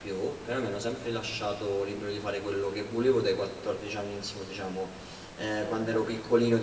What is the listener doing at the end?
listening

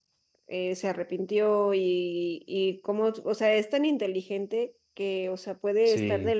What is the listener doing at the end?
listening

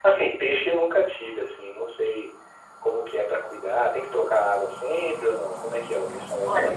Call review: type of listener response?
taking over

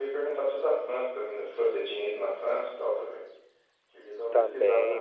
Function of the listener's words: taking over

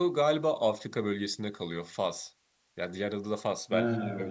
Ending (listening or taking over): taking over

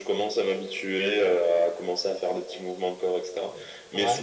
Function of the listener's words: listening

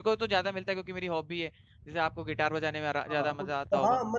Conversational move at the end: taking over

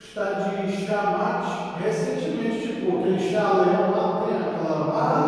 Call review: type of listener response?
taking over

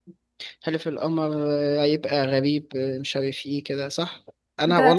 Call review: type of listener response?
taking over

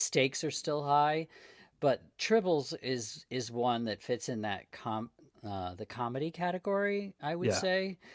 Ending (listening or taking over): listening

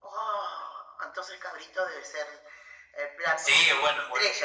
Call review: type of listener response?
taking over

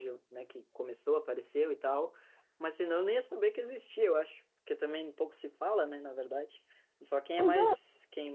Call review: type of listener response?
listening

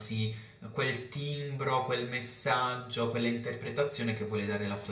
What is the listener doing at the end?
taking over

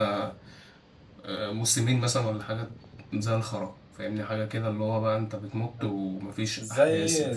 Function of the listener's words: taking over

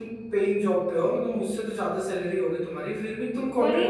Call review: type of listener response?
taking over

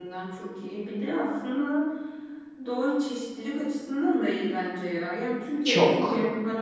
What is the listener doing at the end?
listening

